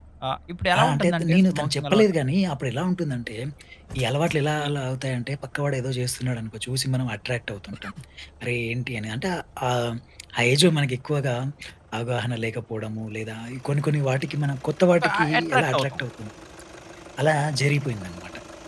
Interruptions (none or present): present